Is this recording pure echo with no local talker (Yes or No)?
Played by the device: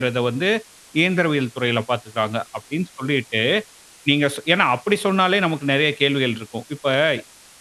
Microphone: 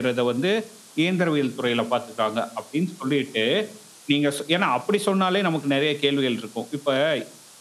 Yes